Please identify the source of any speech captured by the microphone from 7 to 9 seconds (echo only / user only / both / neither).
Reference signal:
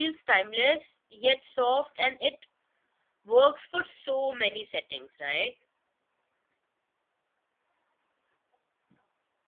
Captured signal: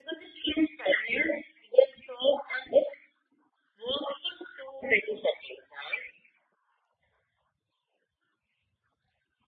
neither